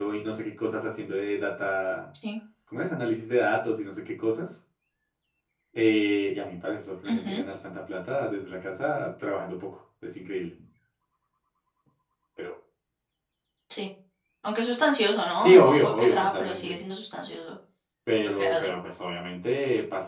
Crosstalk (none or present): present